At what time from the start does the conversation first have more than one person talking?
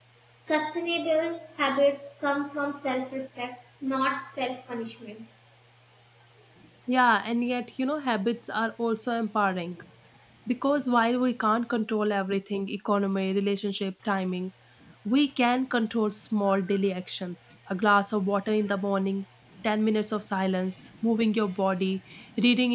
none

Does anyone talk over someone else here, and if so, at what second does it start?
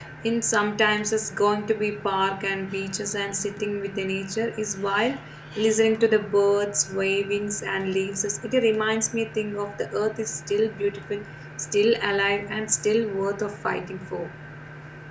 none

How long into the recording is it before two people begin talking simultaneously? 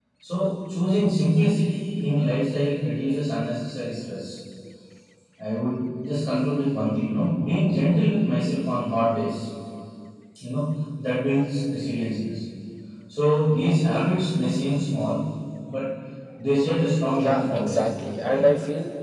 17.2 s

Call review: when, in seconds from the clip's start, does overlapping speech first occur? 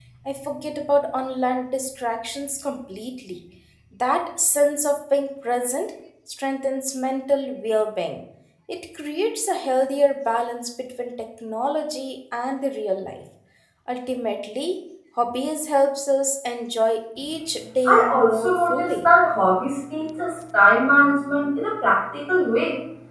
17.9 s

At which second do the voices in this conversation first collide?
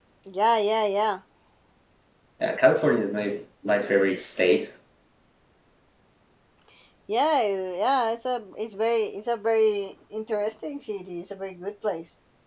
none

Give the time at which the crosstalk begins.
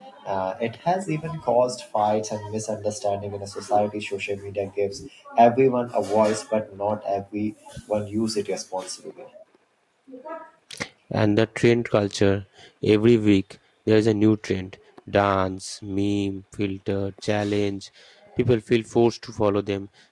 none

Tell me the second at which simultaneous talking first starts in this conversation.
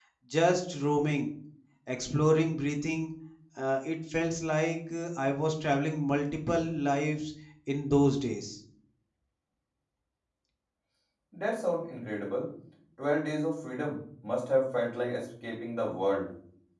none

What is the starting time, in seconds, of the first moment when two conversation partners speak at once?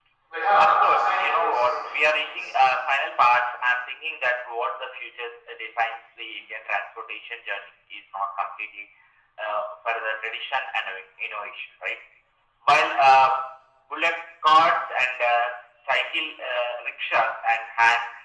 0.6 s

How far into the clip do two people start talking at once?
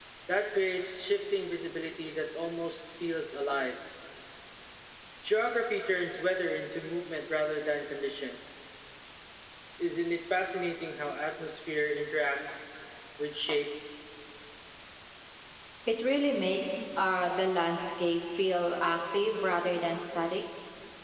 none

